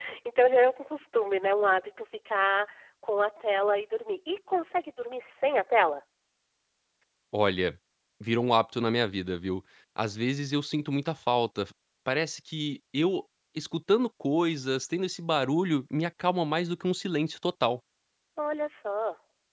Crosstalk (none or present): none